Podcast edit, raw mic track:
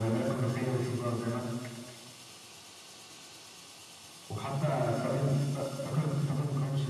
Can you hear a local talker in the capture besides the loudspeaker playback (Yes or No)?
No